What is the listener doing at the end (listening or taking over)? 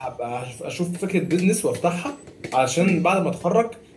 listening